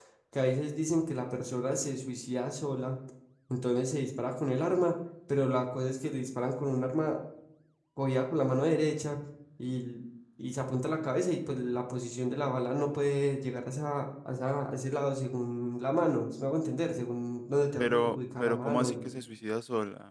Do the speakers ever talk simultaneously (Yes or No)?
Yes